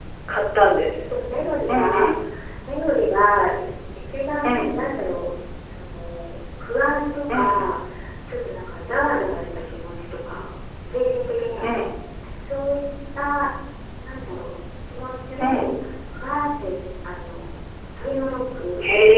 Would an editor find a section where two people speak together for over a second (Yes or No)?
No